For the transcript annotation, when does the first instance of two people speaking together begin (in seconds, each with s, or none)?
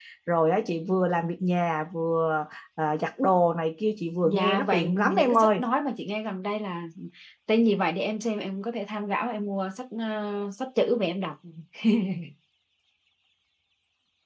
4.2 s